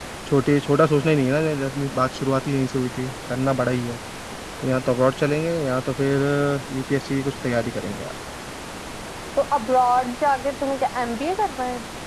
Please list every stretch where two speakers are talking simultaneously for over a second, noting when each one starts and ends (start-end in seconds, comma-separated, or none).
none